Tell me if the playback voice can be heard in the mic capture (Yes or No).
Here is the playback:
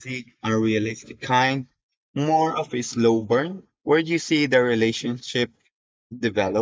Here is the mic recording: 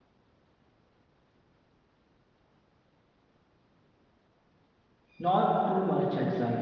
No